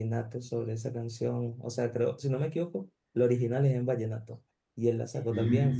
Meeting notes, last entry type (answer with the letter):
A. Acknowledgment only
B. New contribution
A